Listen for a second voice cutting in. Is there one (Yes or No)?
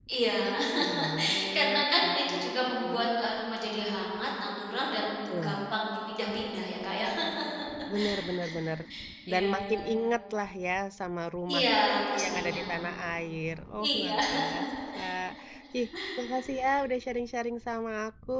Yes